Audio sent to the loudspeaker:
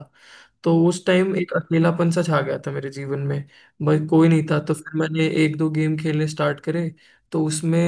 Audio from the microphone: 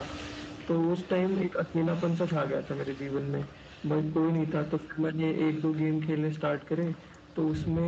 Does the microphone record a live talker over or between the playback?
No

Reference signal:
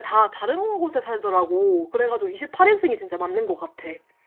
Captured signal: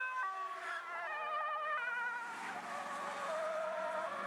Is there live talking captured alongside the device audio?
No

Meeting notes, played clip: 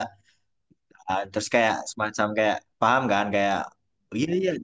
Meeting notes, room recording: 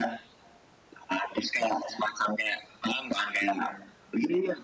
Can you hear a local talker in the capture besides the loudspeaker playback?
No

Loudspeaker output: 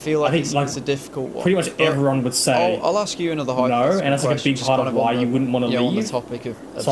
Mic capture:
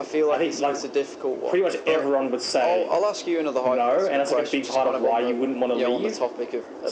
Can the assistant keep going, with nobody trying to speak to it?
Yes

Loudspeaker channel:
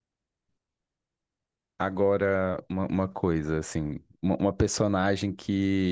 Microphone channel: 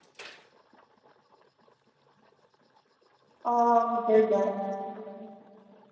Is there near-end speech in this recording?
Yes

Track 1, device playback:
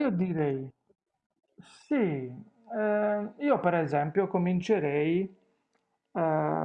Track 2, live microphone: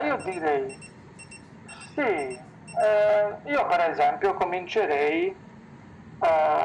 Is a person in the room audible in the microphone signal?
No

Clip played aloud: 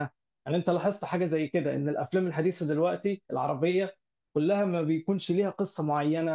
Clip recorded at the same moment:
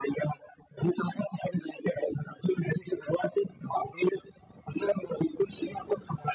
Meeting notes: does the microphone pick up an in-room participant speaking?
No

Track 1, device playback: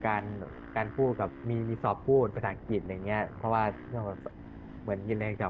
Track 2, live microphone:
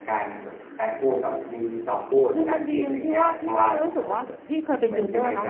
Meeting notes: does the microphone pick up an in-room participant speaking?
Yes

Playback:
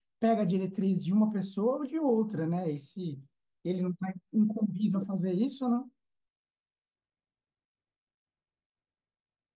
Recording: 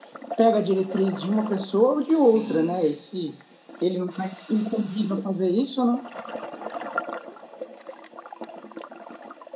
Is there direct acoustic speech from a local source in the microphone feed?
Yes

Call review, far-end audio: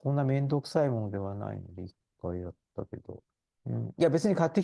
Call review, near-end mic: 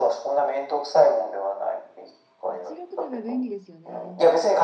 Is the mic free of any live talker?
No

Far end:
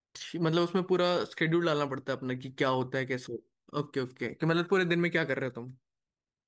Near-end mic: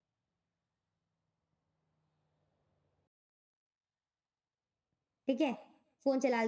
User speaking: Yes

